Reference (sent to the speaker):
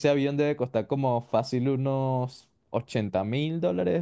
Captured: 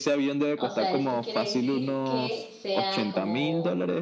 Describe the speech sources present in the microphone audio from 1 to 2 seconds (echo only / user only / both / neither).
both